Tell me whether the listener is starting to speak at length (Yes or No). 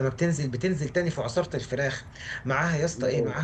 No